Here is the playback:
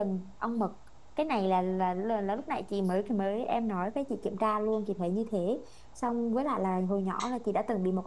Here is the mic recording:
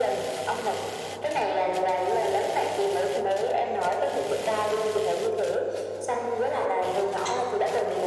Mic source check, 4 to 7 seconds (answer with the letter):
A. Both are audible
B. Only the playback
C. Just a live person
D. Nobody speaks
B